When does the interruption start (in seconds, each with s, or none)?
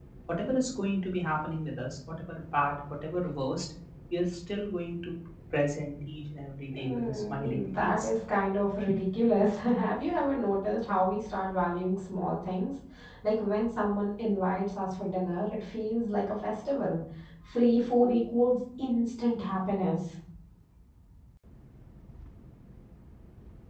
6.7 s